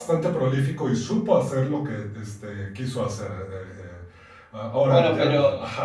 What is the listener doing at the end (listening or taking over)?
taking over